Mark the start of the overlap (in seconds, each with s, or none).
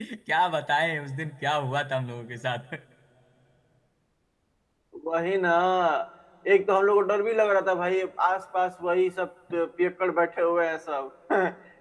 none